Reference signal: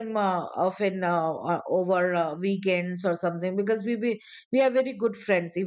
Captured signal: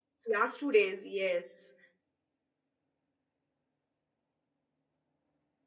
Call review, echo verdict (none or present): none